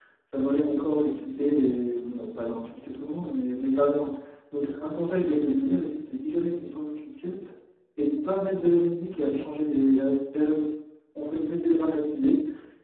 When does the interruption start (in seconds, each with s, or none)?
none